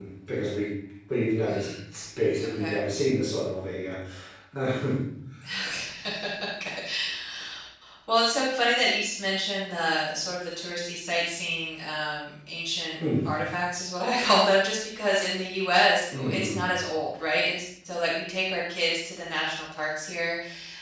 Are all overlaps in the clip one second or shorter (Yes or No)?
Yes